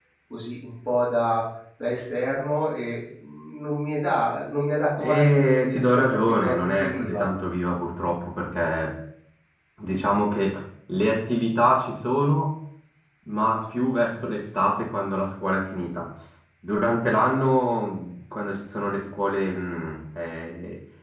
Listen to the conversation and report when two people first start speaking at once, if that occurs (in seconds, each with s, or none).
5.0 s